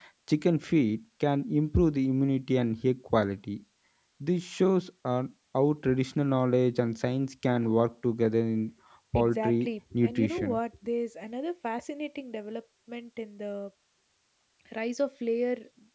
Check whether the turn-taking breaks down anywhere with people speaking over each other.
Yes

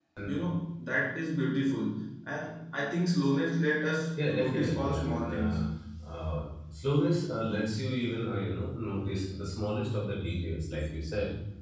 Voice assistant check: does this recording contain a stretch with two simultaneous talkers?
Yes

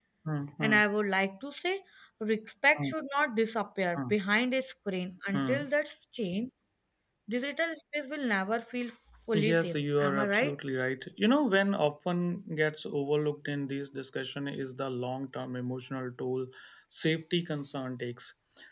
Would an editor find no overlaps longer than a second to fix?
No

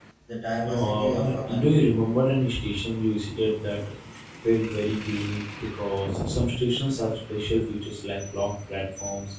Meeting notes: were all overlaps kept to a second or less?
No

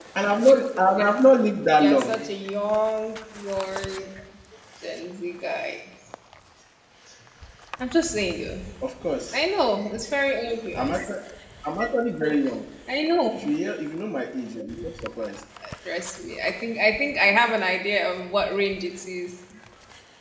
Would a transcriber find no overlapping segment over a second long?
Yes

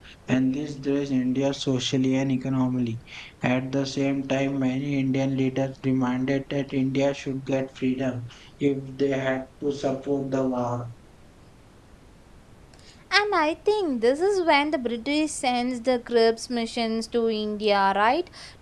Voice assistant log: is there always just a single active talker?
Yes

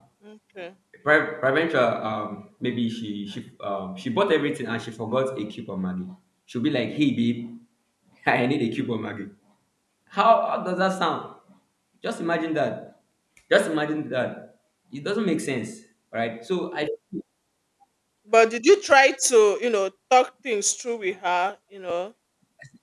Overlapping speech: No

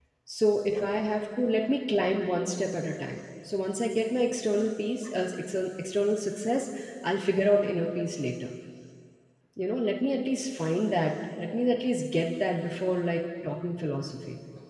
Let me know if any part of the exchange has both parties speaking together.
No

